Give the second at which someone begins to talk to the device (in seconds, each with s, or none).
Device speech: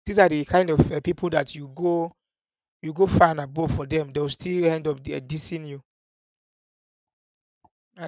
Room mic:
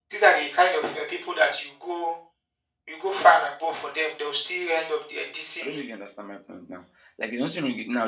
5.6 s